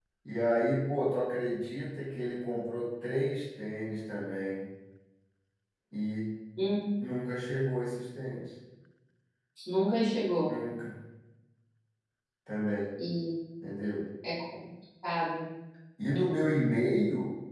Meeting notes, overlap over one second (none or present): none